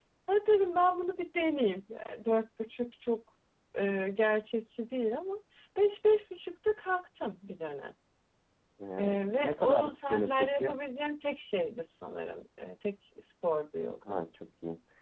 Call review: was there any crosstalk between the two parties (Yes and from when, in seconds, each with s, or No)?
Yes, from 9.0 s